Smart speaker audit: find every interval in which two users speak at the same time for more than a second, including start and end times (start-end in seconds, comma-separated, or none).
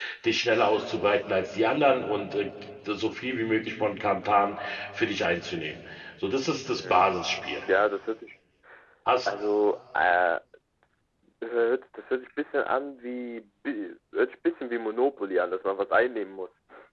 none